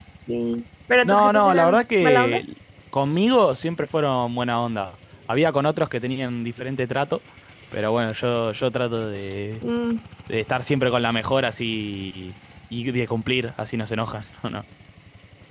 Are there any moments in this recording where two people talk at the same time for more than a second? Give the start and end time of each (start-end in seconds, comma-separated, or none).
1.0-2.4